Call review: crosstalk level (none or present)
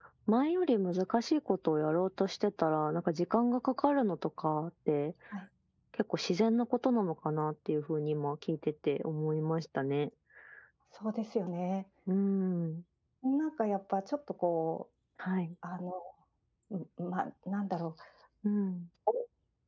none